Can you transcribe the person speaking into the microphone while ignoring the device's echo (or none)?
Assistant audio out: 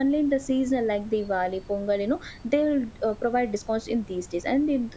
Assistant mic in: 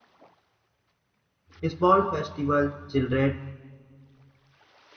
a small festival. Children